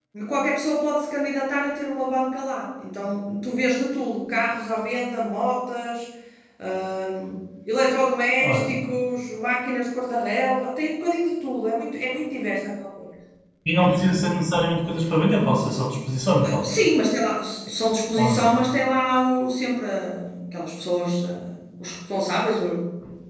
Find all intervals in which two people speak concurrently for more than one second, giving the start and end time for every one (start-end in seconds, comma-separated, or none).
none